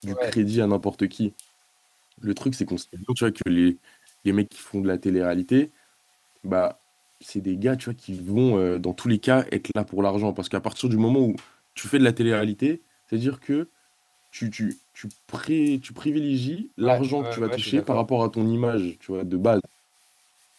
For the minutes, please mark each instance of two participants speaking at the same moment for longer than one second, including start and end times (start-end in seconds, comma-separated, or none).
16.8-18.0